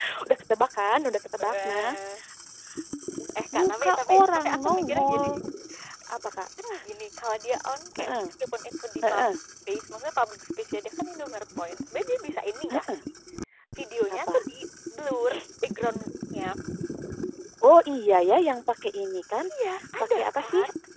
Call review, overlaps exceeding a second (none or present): present